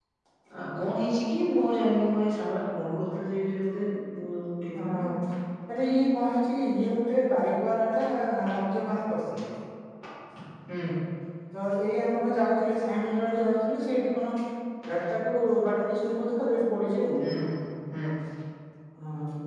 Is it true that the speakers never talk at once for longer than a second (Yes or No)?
Yes